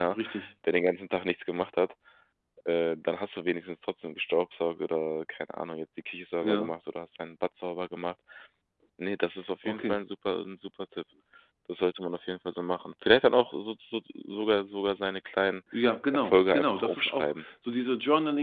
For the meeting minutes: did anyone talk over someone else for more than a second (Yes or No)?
Yes